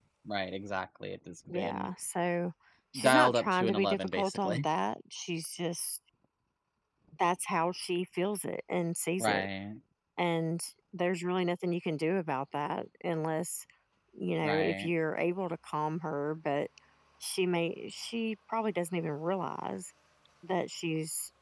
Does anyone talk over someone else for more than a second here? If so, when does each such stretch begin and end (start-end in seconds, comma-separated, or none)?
3.0-4.7